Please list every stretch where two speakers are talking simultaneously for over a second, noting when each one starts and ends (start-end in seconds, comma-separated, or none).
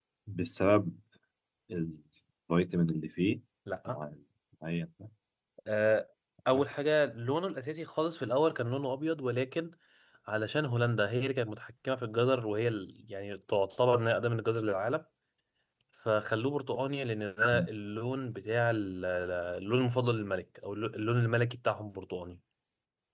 none